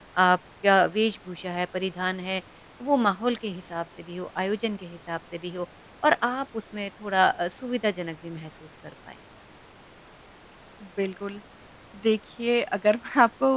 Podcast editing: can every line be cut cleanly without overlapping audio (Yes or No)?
Yes